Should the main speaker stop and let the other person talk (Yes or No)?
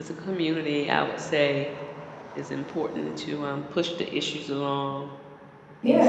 Yes